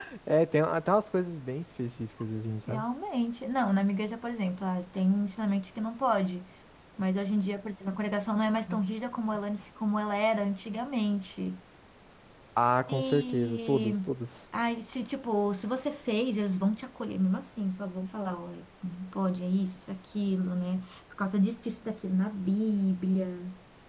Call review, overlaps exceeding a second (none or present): present